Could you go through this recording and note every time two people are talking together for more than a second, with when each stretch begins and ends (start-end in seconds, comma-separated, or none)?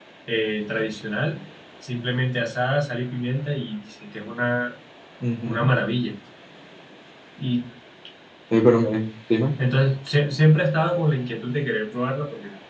none